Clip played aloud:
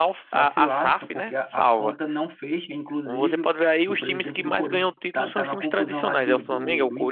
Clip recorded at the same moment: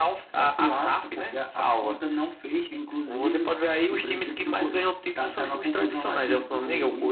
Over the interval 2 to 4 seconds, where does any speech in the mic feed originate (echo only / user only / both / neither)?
echo only